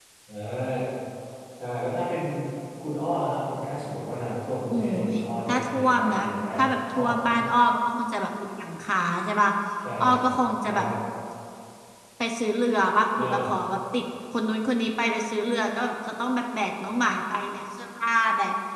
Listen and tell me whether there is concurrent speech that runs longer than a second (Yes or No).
Yes